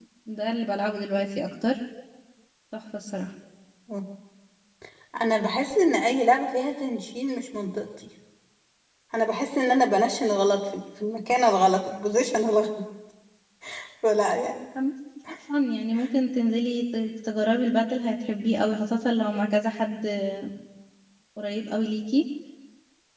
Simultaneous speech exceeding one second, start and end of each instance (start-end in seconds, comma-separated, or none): none